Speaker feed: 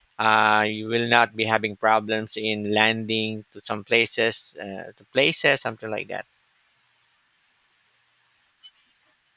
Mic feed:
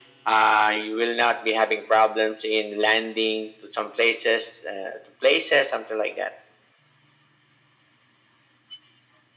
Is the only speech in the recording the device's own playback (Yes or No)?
Yes